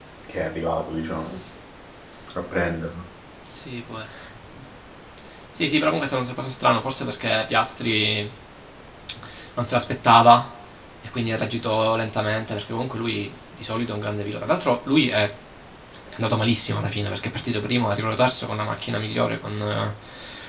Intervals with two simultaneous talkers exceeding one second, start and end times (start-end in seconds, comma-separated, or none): none